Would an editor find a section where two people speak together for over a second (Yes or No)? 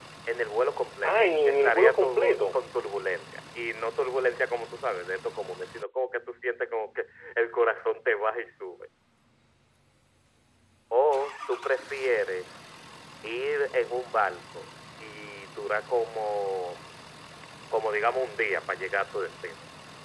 Yes